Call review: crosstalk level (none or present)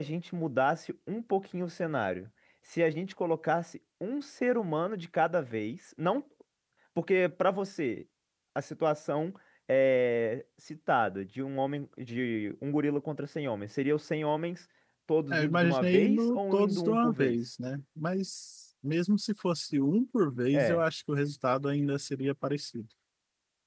present